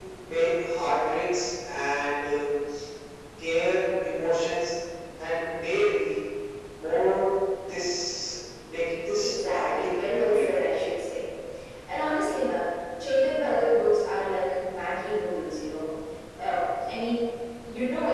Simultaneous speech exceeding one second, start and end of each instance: 9.2-10.6

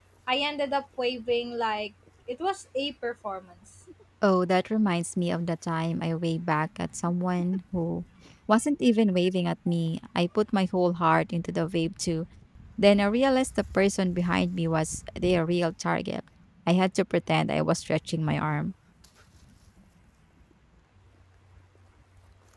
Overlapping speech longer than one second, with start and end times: none

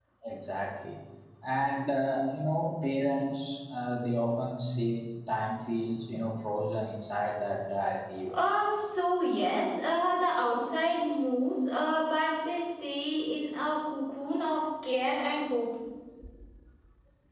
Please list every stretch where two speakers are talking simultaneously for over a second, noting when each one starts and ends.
none

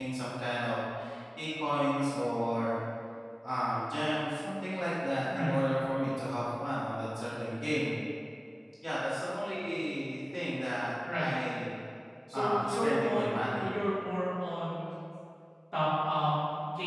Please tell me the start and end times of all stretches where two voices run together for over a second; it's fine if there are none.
12.3-13.7

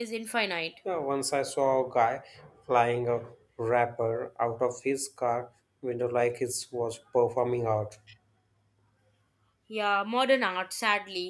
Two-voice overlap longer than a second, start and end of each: none

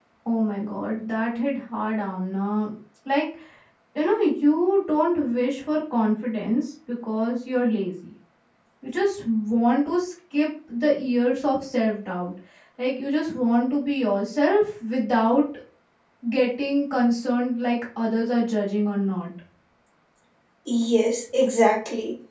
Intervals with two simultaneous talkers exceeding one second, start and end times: none

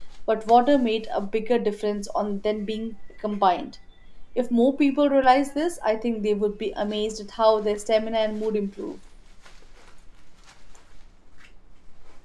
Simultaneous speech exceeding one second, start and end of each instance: none

